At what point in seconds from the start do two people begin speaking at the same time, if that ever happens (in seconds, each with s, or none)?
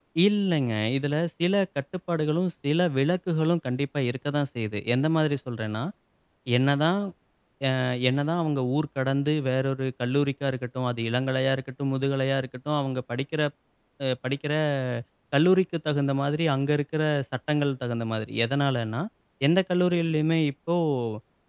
none